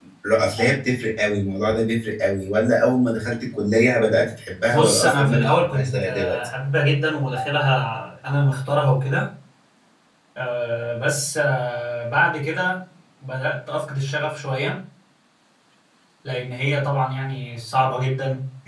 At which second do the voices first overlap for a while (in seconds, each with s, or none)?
4.7 s